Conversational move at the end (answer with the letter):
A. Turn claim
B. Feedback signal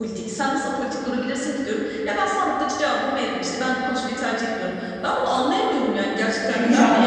A